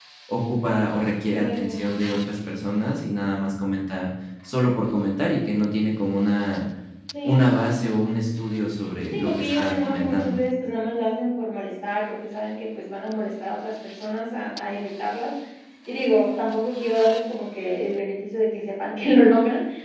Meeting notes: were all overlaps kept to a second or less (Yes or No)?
No